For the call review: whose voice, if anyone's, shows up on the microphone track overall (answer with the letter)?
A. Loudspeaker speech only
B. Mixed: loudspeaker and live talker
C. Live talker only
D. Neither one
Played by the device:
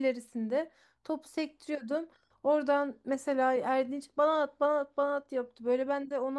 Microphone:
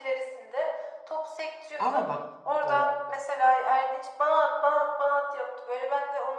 B